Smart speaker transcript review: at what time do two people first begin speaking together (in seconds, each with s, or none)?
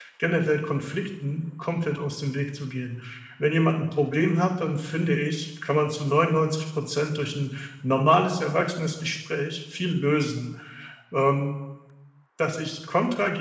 none